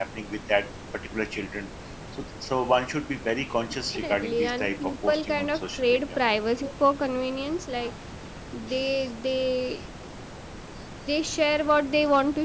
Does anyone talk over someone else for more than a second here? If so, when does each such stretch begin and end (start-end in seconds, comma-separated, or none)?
4.0-6.2